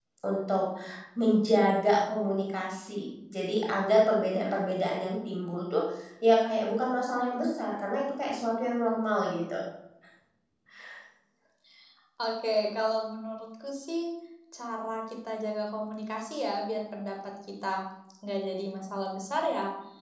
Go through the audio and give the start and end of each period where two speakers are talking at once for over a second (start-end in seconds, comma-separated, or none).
none